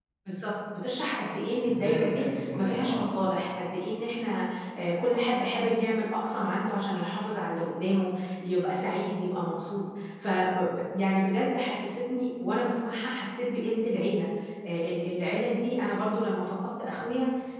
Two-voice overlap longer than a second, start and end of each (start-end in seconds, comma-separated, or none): 1.6-3.1